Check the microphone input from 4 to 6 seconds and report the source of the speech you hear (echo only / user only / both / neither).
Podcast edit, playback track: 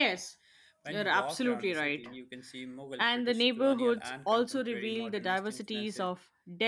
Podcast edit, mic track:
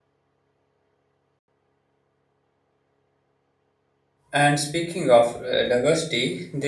user only